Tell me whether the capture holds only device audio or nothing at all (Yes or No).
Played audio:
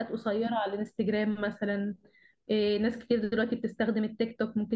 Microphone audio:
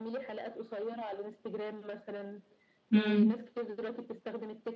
No